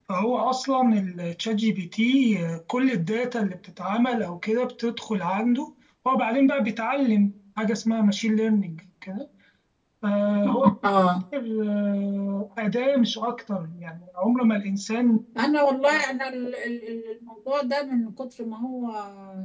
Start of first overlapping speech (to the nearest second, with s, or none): none